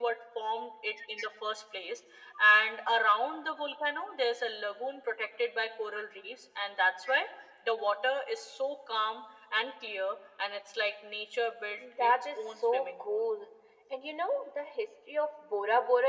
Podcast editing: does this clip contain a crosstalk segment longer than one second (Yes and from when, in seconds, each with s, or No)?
Yes, from 11.8 s